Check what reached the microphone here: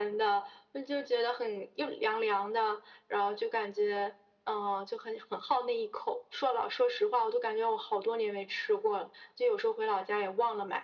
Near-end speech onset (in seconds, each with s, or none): none